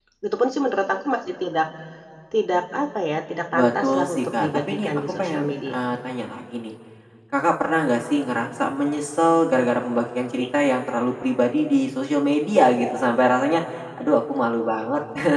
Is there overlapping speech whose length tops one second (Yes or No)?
Yes